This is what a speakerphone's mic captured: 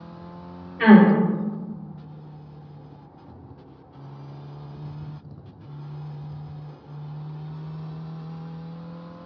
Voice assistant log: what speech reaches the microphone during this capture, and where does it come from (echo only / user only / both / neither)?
user only